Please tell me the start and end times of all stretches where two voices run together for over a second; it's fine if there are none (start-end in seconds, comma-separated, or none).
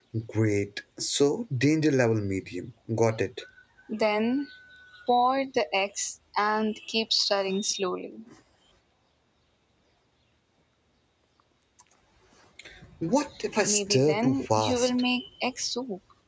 13.7-15.0